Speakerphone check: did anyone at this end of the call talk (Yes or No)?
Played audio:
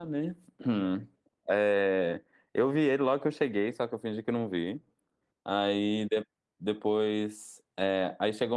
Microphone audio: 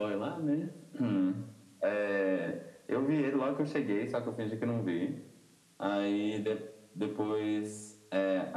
No